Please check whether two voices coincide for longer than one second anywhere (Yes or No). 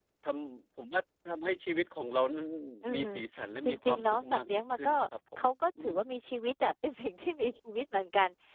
Yes